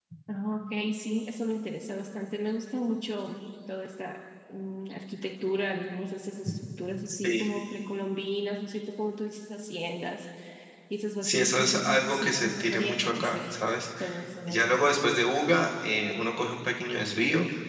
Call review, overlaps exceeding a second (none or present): present